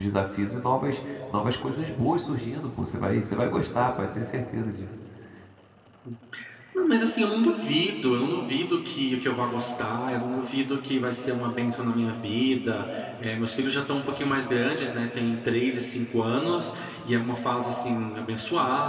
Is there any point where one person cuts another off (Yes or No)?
No